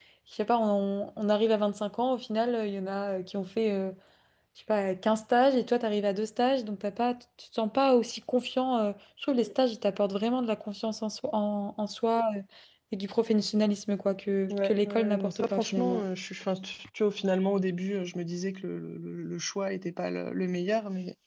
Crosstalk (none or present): present